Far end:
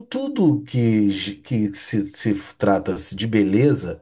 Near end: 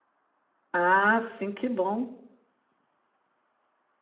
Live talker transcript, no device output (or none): Ah, sim, que bom.